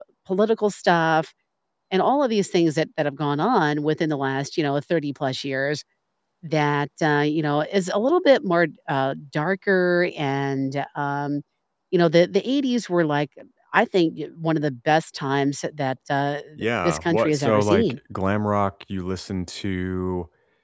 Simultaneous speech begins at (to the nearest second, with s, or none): 17 s